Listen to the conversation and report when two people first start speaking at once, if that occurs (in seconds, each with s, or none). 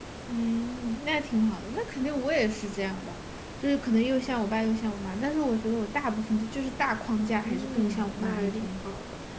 7.2 s